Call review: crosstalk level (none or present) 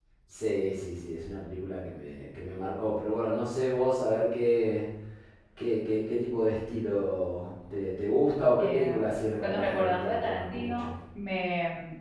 present